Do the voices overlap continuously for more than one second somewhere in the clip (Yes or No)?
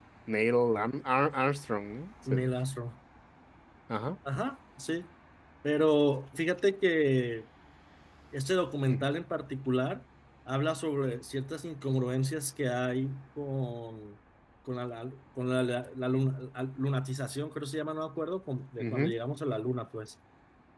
No